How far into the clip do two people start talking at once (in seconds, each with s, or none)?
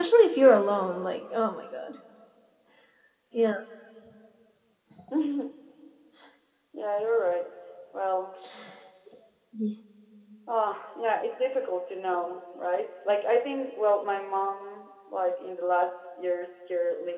none